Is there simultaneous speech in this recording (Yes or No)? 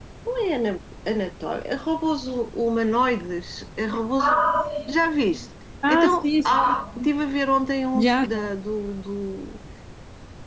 Yes